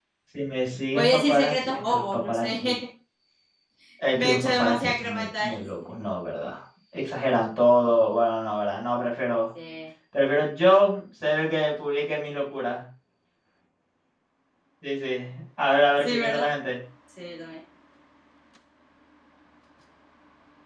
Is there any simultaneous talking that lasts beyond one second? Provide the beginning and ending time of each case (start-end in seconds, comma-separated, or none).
1.0-2.5, 4.2-5.6